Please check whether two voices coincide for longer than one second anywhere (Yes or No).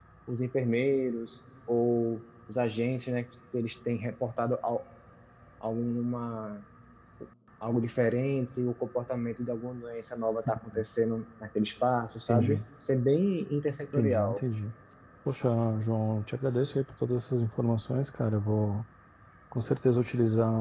No